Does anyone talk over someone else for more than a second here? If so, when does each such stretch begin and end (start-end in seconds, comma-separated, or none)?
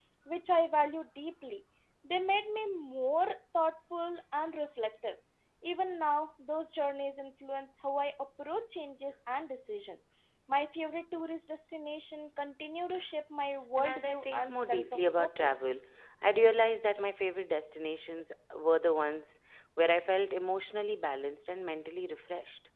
13.8-15.6